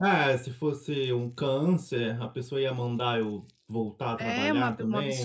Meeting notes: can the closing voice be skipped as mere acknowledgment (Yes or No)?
No